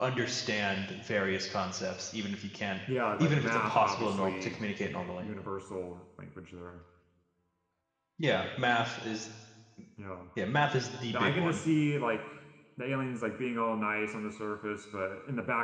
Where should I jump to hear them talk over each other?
3.2 s

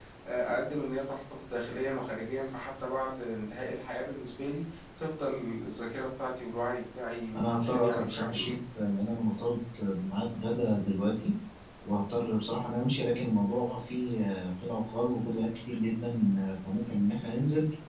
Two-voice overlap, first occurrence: 7.3 s

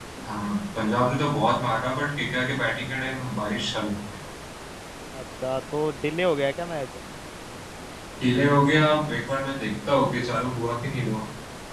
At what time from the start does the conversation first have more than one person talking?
none

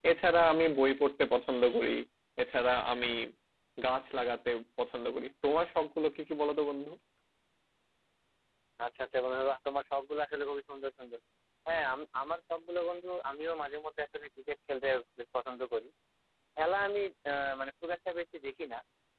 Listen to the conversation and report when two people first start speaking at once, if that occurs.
none

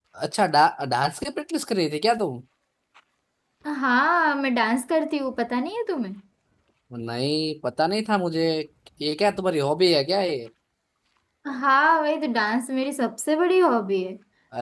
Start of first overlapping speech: none

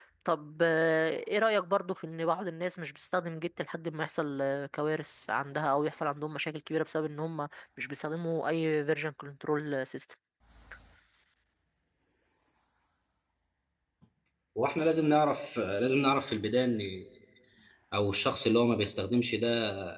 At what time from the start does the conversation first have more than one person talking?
none

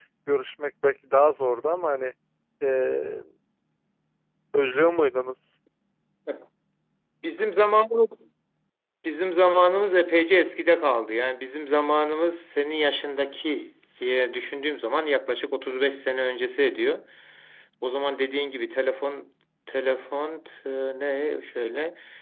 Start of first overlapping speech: none

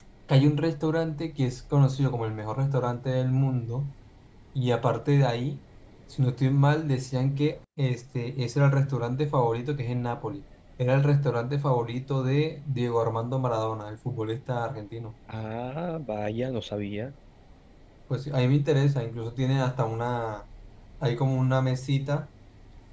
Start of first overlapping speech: none

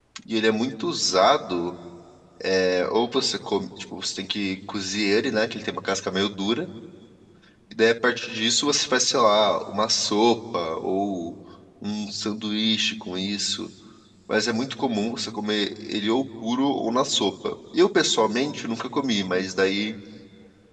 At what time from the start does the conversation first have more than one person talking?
none

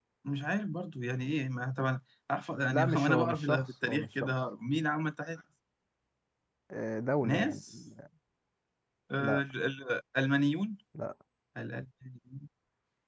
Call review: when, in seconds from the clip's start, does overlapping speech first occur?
2.7 s

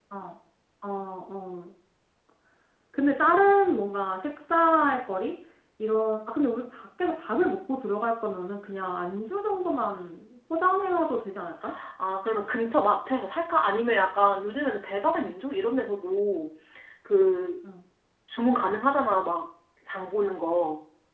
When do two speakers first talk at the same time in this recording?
none

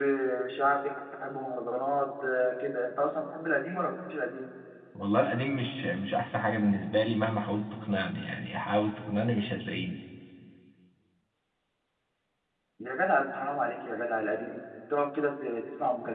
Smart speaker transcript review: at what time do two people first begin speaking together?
none

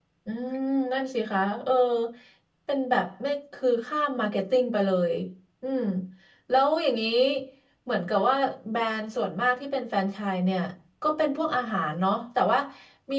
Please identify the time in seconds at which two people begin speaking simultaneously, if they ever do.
none

